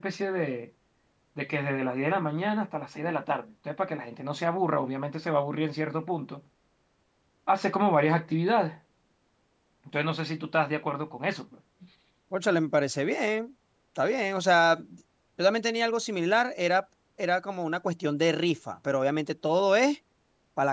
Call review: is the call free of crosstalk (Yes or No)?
Yes